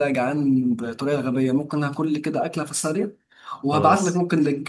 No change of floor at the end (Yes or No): Yes